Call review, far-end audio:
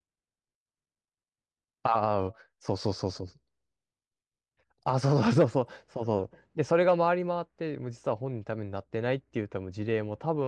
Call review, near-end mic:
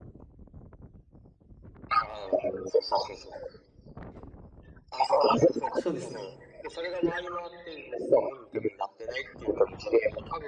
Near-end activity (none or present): present